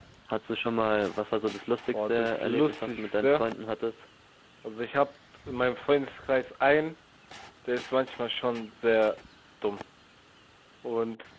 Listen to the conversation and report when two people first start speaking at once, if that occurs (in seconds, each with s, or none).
1.9 s